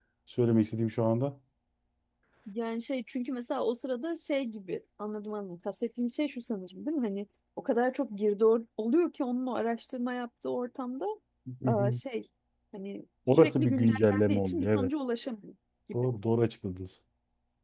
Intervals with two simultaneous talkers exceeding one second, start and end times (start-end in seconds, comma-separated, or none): 13.3-14.9